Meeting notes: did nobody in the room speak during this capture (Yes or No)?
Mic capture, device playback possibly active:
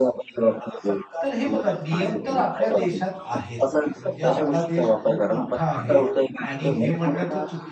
No